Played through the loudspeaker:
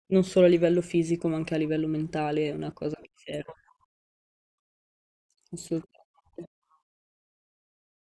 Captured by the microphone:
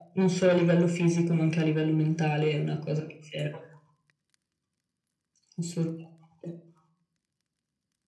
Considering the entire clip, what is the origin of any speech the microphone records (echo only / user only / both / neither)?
echo only